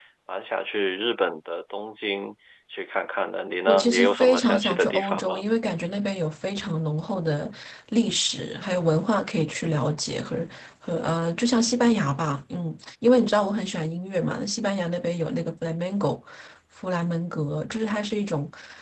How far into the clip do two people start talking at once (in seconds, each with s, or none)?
3.7 s